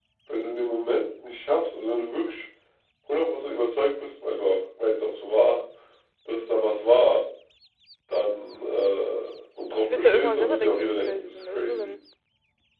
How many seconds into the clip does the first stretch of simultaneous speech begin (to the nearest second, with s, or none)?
10 s